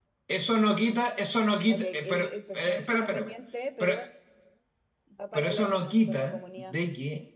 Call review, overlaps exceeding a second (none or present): present